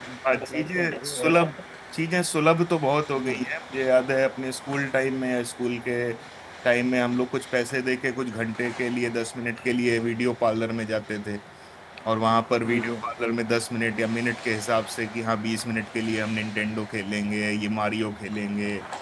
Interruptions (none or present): present